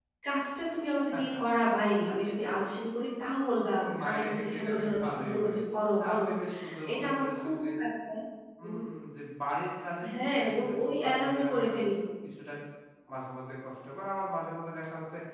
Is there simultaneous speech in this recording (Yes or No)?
Yes